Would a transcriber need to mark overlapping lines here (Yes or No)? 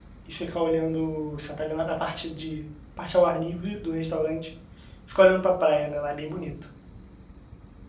No